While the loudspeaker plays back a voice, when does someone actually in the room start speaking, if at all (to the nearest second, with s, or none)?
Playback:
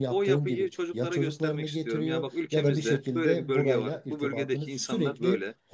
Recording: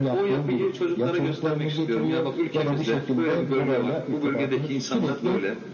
none